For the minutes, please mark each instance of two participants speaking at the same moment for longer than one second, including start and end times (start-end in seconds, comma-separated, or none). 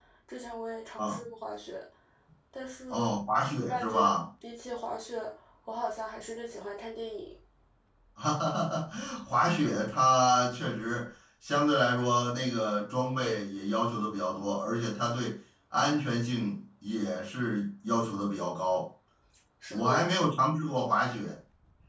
none